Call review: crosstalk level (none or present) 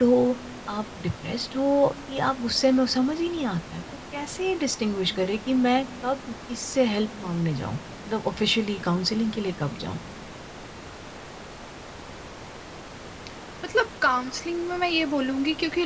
none